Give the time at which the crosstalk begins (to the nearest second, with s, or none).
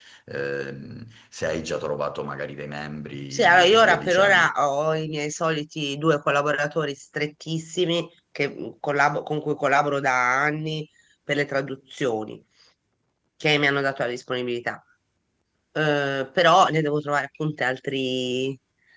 3 s